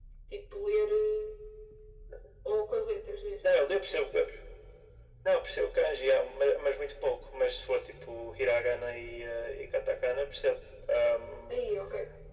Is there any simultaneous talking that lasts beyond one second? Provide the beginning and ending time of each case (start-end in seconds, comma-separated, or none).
none